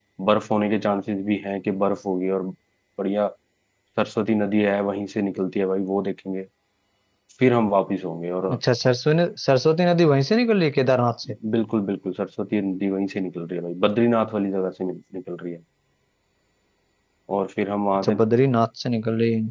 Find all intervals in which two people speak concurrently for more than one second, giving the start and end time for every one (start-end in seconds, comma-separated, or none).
none